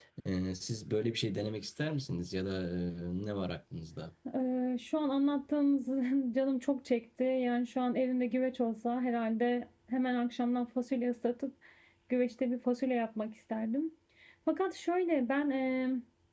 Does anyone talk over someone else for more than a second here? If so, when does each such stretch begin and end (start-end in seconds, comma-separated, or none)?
none